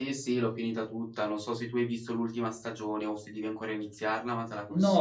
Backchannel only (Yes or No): No